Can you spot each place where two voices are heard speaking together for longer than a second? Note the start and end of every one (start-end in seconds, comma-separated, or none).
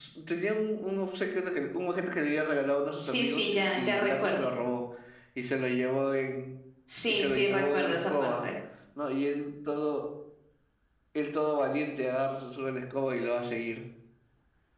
3.0-4.4, 7.1-8.3